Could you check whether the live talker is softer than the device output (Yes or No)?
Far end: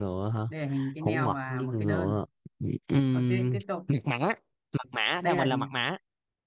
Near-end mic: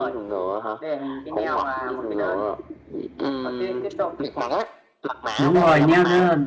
No